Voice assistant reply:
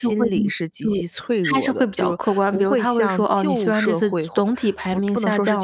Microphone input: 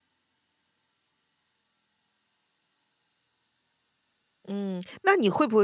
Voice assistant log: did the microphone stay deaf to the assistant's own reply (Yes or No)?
Yes